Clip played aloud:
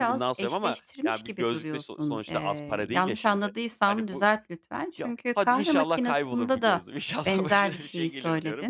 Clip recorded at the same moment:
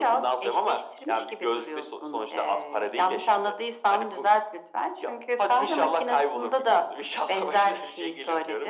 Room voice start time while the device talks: none

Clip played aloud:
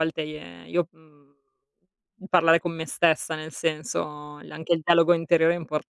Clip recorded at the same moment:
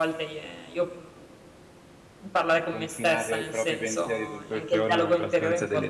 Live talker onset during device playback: 2.5 s

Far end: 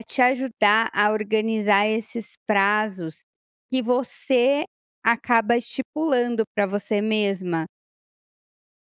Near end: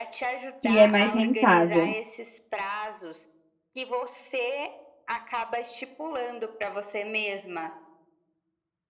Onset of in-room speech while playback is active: 0.6 s

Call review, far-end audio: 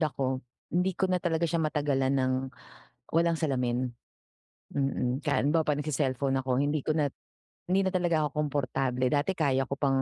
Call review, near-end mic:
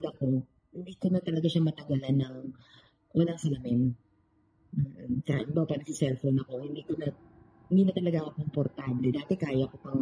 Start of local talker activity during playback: none

